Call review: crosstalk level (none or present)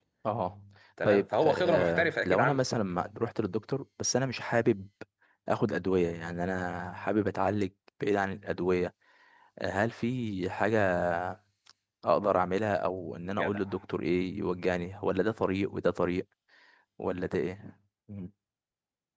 present